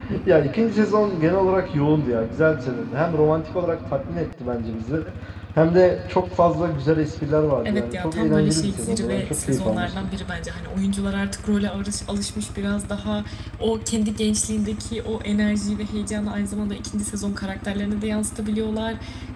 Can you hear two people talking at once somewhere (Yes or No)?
Yes